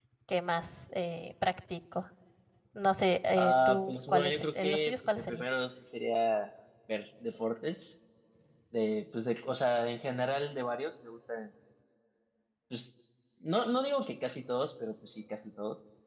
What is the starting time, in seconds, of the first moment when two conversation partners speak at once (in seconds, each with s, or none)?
3.4 s